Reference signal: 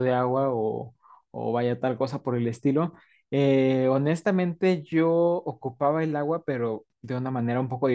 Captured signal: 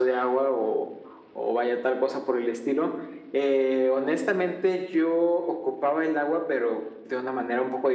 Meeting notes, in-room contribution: none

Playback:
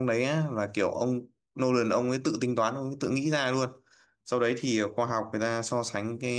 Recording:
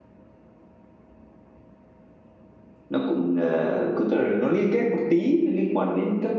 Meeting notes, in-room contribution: present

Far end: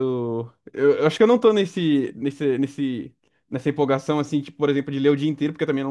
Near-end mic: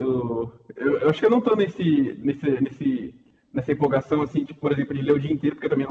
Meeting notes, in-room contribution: none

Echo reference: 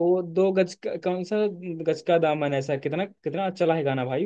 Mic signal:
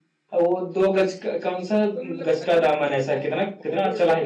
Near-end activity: present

